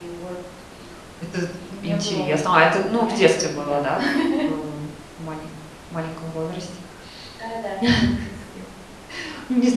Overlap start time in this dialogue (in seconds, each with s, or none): 1.8 s